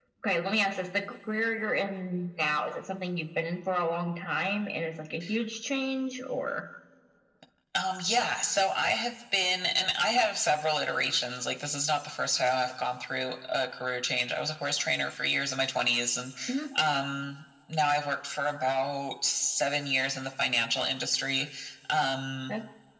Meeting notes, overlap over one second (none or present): none